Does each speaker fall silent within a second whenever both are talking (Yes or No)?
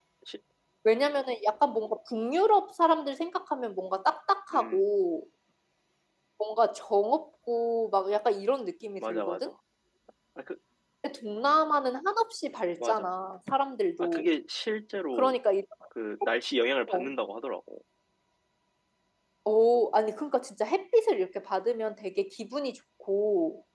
Yes